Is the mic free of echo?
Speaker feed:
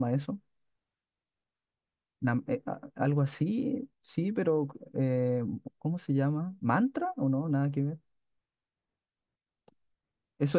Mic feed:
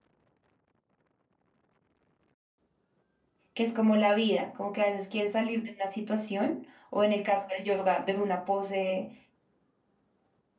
Yes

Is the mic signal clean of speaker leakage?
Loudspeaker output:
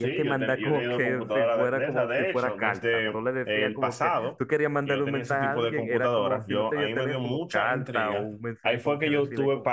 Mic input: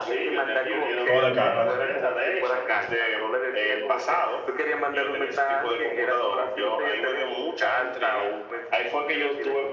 No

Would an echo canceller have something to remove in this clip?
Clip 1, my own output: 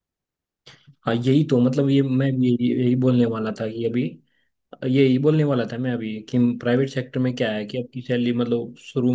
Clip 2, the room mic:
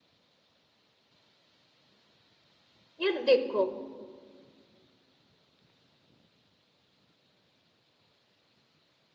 No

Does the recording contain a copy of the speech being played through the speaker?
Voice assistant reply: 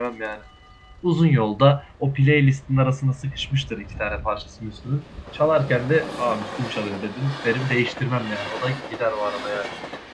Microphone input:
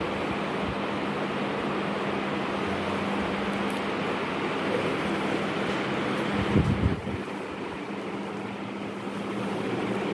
No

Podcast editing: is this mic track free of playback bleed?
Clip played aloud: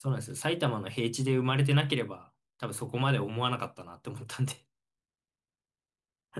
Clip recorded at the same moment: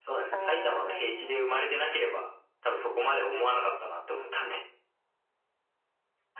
No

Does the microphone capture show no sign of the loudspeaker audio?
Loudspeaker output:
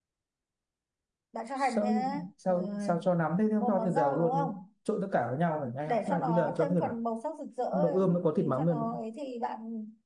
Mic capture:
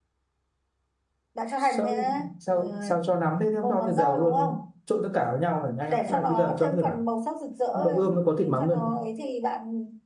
No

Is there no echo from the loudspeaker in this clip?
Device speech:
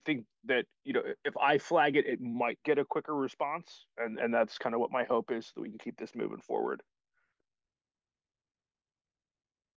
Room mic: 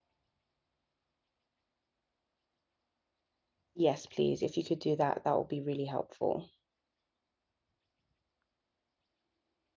Yes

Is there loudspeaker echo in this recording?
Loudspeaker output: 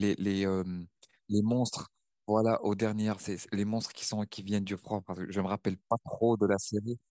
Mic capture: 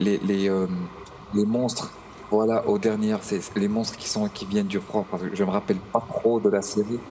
Yes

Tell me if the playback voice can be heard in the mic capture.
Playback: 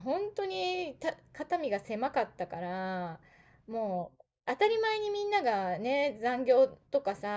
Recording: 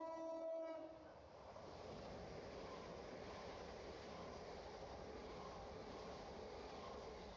No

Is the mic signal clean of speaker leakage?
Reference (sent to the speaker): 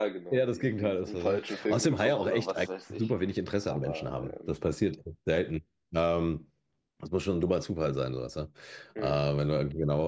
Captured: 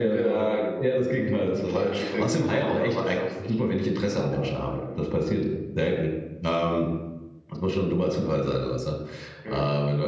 No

